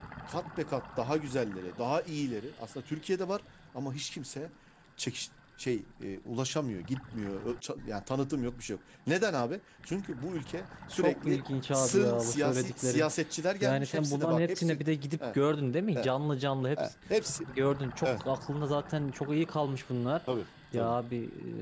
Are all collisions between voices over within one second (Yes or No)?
No